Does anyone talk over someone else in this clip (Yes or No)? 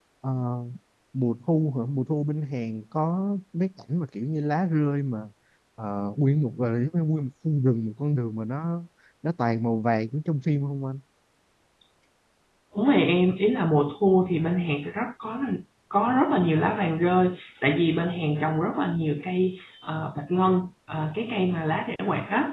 No